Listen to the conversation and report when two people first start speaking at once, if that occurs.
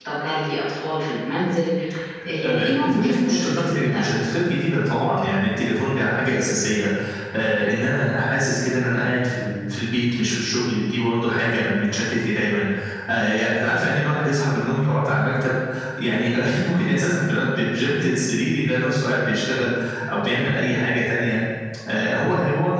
2.4 s

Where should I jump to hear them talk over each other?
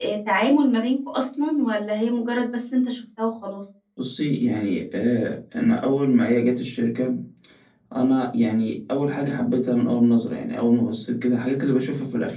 none

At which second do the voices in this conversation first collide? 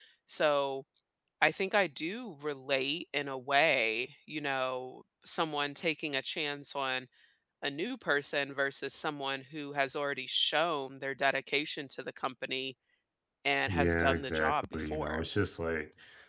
13.7 s

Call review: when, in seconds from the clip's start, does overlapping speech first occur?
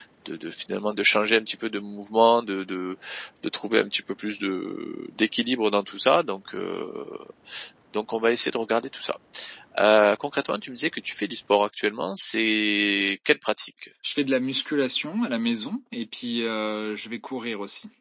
none

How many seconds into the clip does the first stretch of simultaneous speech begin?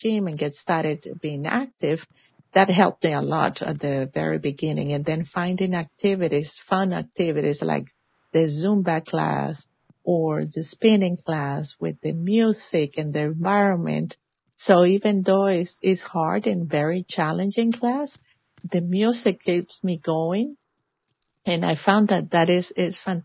none

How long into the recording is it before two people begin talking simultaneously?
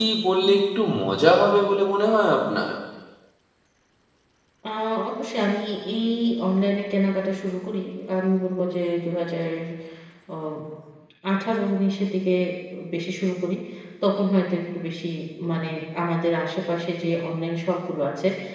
none

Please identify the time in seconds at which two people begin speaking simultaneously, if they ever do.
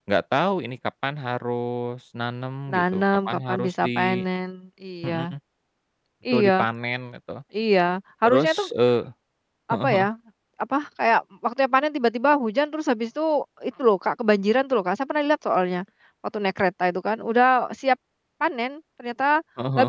2.7 s

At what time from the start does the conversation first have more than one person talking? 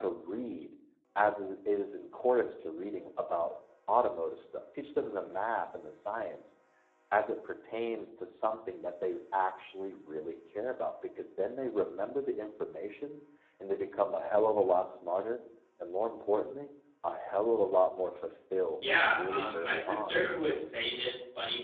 18.8 s

